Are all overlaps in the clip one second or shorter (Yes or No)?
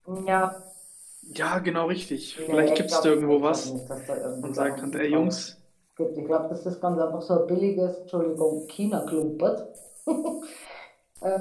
No